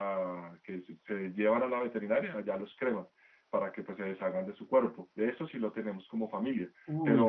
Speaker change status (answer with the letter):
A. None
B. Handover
A